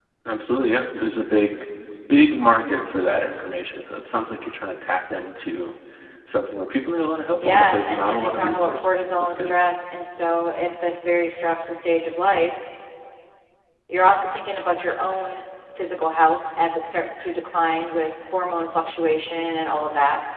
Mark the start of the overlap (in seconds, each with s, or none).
7.4 s